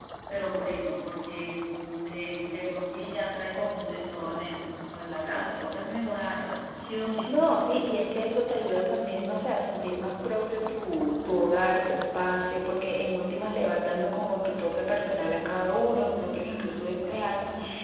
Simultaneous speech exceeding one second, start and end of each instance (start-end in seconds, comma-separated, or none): none